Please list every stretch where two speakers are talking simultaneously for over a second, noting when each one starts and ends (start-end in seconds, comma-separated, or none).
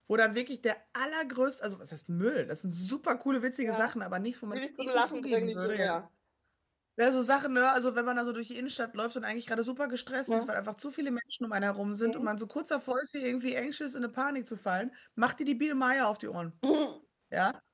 4.5-5.9